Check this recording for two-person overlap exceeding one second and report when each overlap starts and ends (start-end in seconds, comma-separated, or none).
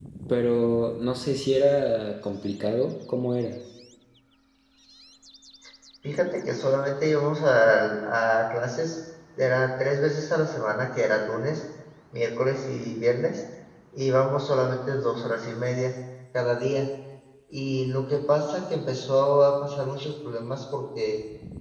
none